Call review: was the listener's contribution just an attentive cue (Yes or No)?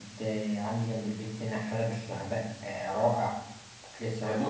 No